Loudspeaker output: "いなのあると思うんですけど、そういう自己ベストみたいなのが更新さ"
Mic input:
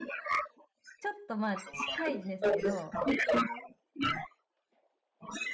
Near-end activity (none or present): present